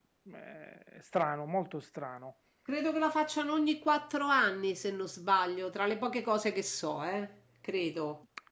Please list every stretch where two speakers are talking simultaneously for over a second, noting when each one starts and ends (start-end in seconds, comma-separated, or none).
none